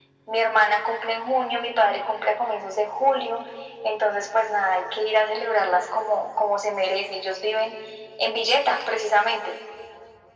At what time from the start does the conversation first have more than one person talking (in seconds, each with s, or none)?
none